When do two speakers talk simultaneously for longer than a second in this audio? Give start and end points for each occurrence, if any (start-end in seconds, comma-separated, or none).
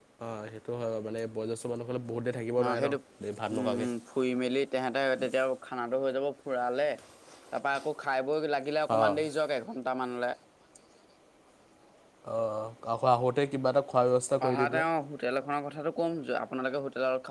none